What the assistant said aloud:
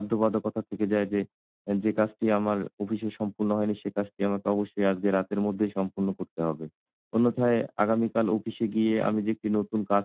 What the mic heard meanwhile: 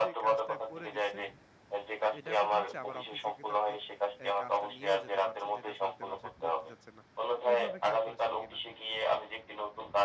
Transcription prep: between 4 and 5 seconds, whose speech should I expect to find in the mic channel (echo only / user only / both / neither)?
both